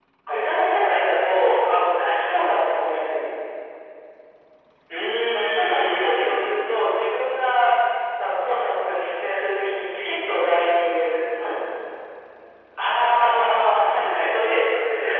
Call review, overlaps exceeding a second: present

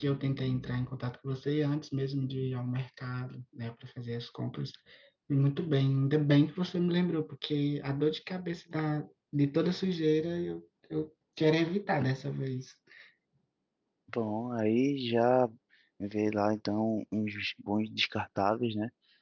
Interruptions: none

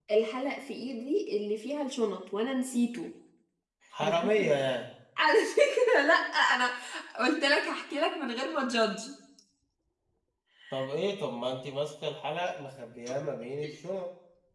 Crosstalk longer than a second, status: none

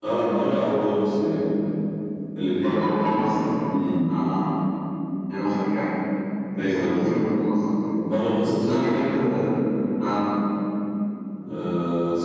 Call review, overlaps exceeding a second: none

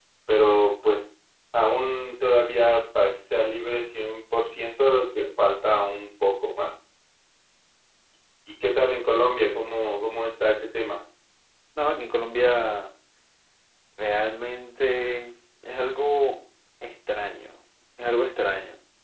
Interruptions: none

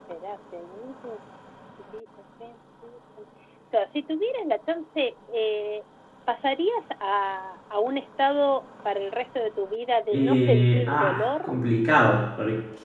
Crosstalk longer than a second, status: present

